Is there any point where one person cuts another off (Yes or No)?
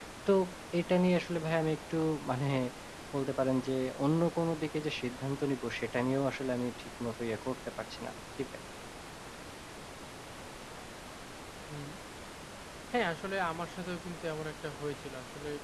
No